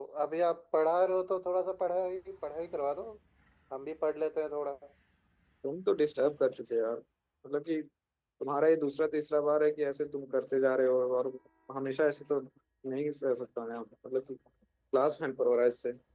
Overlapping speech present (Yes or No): No